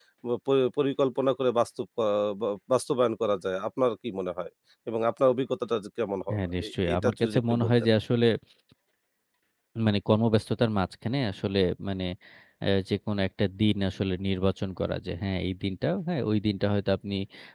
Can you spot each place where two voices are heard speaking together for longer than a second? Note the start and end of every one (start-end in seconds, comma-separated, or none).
6.7-7.9